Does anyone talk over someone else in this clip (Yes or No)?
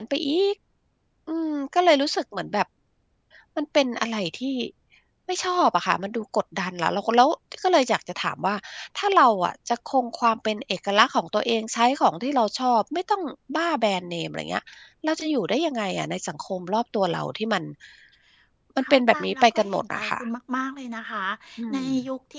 Yes